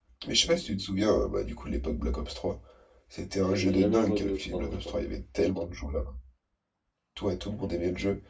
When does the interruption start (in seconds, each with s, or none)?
3.3 s